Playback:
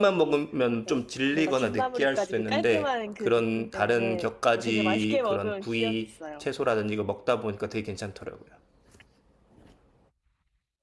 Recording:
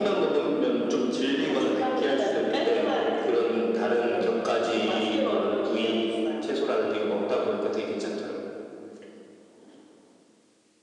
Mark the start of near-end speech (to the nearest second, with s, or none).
none